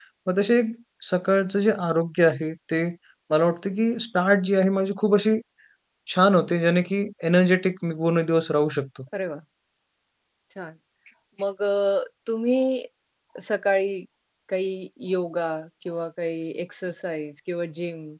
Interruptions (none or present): none